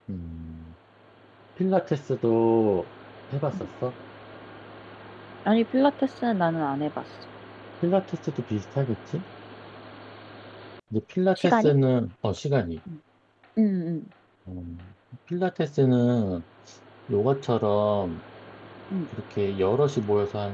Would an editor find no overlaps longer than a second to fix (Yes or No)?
Yes